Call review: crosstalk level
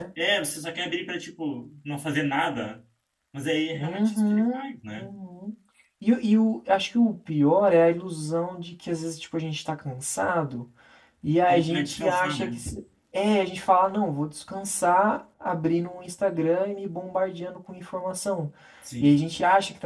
present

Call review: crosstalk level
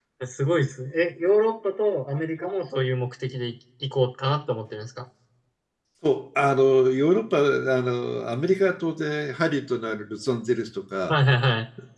none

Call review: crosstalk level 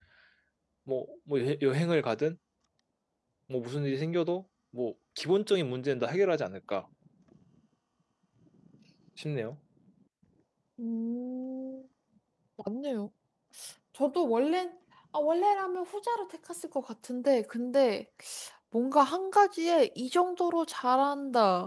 none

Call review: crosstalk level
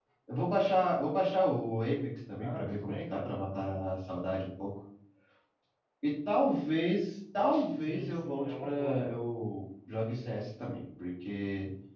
present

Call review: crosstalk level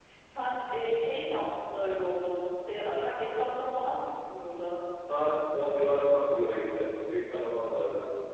none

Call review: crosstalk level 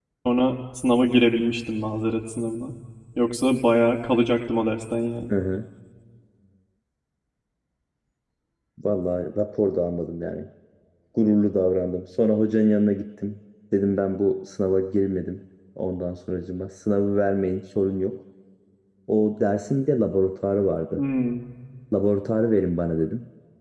none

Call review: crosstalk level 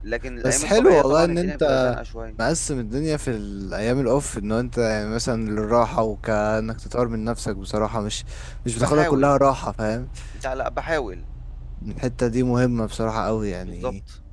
present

